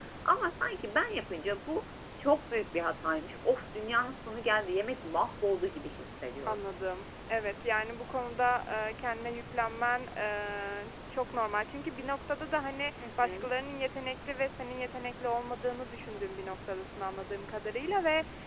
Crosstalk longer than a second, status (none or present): none